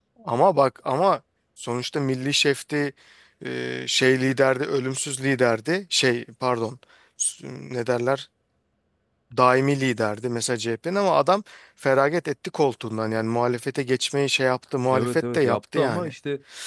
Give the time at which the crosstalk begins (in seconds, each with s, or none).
14.9 s